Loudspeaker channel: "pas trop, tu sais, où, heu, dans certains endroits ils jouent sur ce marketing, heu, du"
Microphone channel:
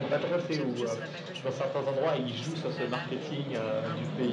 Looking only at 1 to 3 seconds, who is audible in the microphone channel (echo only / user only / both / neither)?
both